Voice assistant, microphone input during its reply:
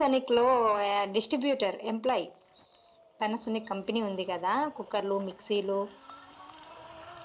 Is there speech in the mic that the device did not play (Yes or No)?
No